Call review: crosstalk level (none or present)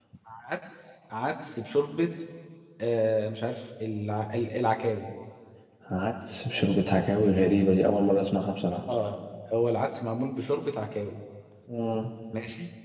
none